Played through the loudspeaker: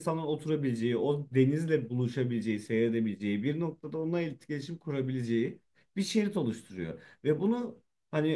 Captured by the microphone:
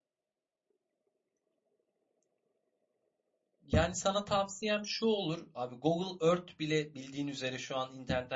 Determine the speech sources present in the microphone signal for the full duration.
user only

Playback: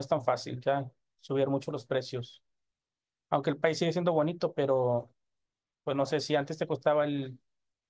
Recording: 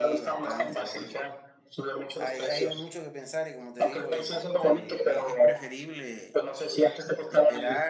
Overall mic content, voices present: both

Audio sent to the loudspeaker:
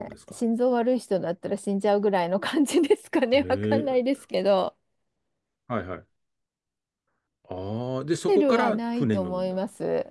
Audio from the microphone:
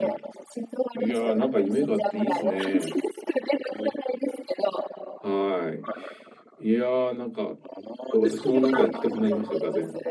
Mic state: both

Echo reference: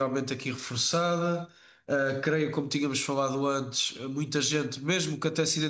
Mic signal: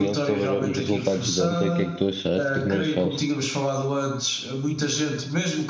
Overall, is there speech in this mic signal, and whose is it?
both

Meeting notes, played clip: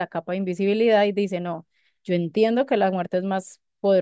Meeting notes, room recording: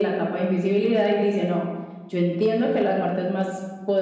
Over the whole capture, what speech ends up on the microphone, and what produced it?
echo only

